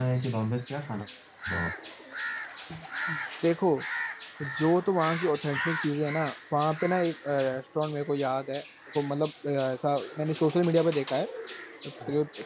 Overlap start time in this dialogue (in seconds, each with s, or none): none